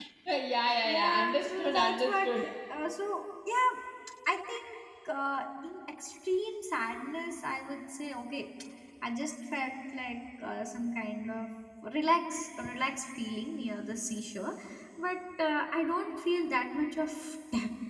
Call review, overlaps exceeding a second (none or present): present